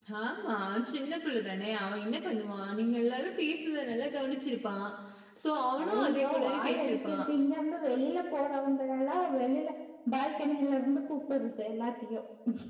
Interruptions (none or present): present